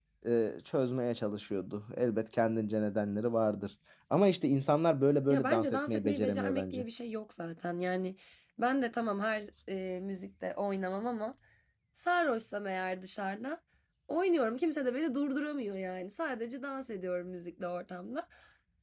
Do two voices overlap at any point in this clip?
Yes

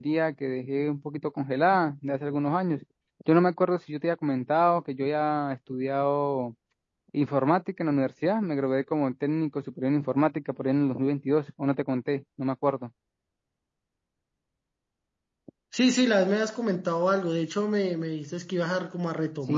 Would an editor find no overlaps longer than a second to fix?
Yes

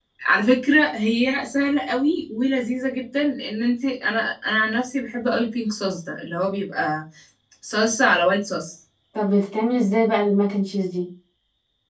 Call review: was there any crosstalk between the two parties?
No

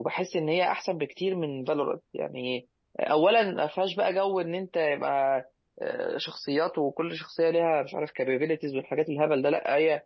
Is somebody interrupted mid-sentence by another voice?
No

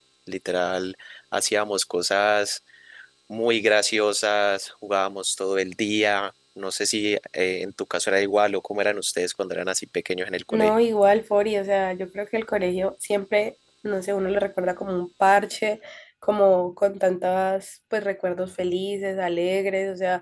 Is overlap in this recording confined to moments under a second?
Yes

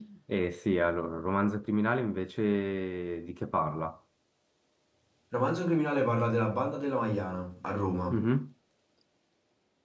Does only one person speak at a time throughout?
Yes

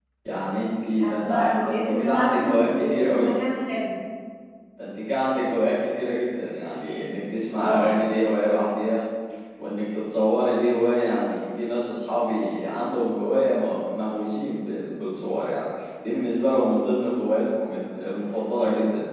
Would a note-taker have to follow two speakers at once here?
Yes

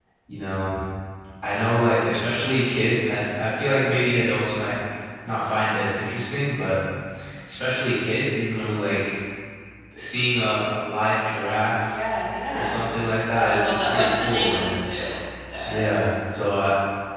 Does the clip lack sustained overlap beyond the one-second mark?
No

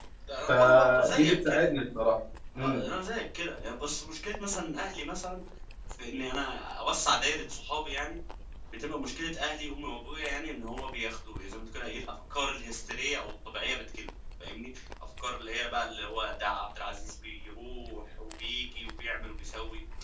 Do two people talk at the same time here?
Yes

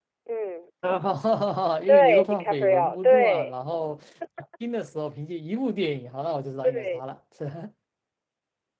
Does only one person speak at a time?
No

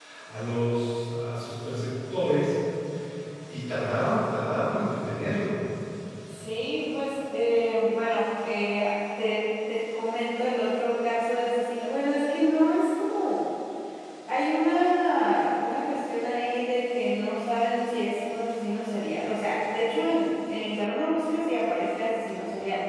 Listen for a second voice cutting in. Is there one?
No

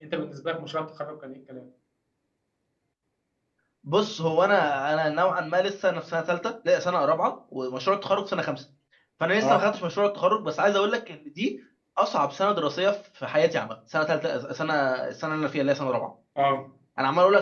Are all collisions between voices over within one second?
Yes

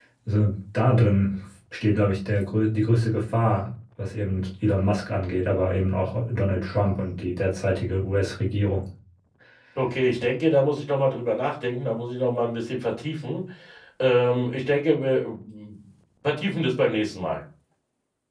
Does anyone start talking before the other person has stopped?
No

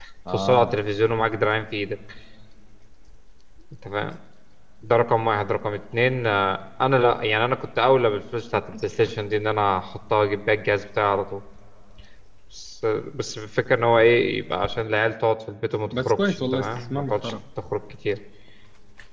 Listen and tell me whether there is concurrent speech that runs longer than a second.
Yes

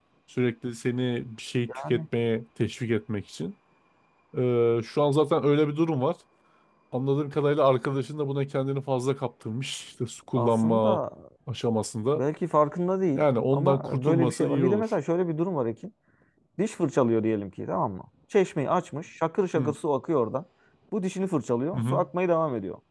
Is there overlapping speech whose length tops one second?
Yes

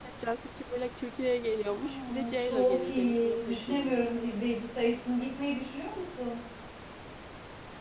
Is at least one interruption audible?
Yes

